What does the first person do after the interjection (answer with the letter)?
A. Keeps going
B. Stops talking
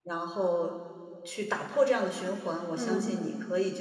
A